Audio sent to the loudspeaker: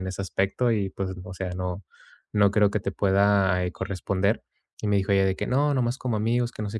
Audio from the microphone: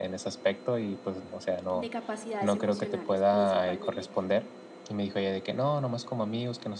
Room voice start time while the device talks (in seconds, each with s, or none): 1.7 s